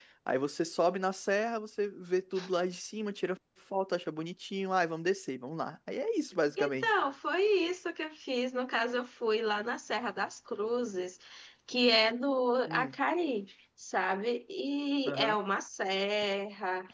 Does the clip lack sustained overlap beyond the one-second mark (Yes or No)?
Yes